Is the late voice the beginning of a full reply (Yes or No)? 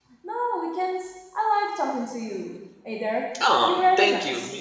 Yes